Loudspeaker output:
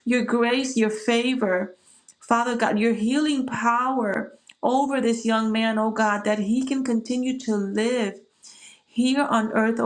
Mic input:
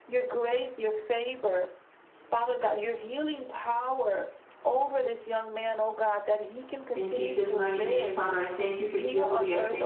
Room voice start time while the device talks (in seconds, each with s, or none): 6.9 s